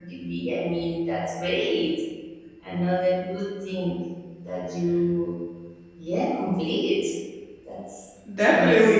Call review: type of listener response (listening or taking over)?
taking over